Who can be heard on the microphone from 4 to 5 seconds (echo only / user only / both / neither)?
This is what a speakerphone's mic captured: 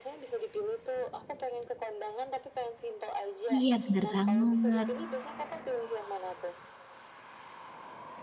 both